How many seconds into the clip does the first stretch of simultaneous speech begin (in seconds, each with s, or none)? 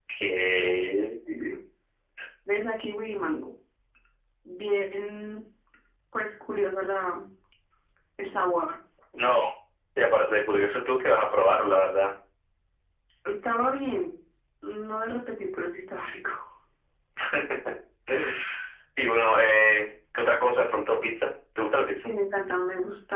none